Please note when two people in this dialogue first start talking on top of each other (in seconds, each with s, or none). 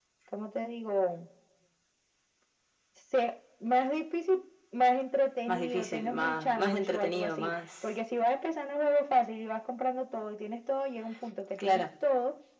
5.5 s